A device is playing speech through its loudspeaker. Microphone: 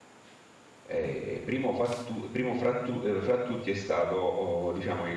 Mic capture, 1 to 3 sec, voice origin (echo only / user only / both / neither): user only